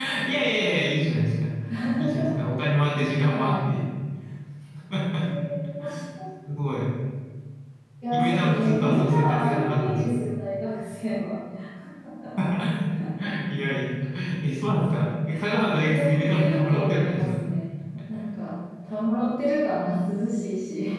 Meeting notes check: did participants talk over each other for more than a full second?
Yes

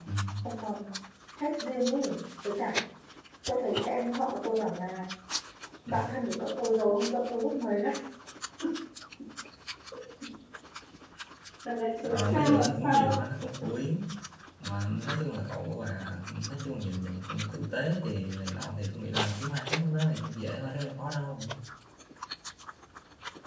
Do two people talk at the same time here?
Yes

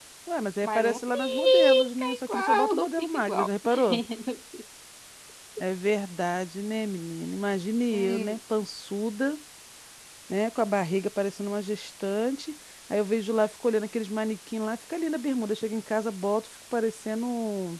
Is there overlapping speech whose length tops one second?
Yes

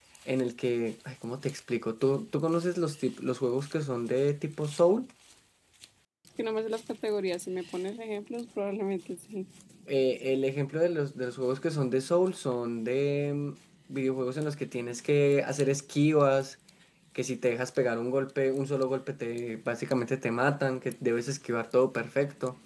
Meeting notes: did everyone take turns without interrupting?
Yes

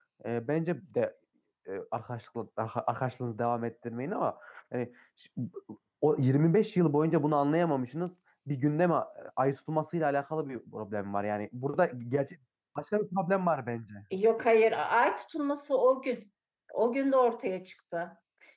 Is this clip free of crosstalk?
Yes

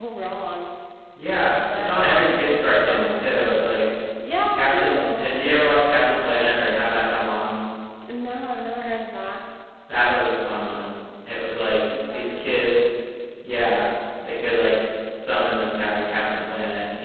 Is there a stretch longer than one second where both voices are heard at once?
Yes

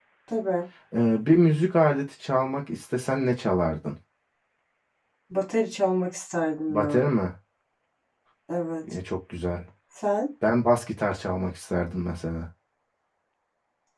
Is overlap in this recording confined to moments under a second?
Yes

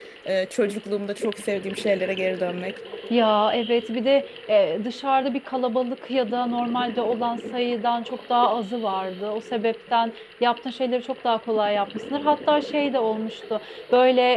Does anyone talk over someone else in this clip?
No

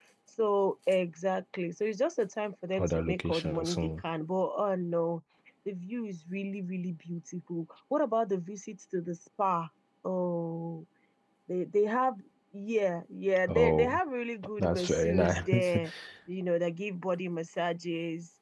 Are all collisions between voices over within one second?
No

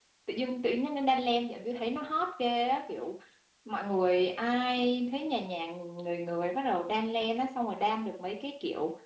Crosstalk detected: No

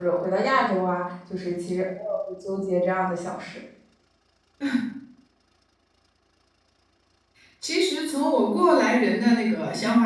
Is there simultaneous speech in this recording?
No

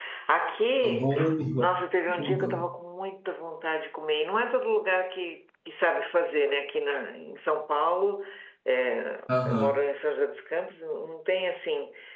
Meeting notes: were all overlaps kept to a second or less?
Yes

